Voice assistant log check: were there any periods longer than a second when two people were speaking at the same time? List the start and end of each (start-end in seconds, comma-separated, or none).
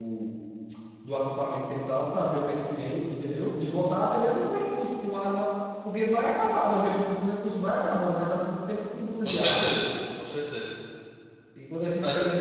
none